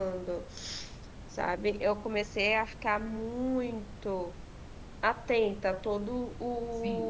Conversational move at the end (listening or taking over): taking over